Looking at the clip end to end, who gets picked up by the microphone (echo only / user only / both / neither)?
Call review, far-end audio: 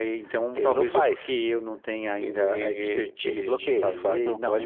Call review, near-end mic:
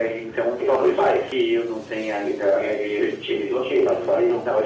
echo only